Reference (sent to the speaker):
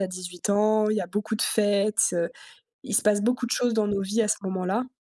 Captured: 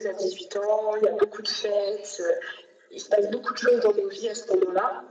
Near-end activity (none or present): none